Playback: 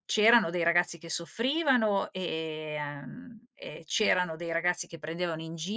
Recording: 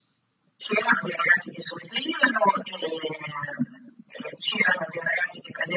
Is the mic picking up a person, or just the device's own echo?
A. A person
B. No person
B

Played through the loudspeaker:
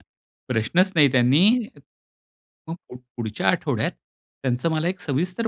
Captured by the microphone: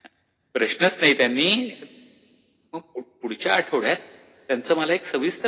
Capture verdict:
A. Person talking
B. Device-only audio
B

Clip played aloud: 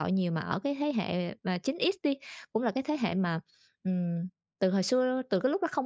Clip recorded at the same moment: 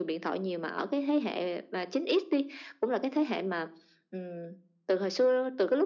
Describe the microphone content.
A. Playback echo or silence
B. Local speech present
A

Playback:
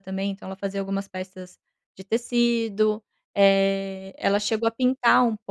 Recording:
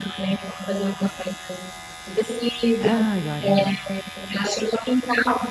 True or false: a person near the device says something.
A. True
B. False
A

